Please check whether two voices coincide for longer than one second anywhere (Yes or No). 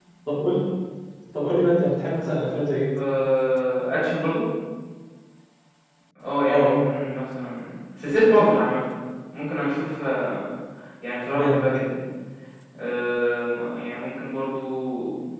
No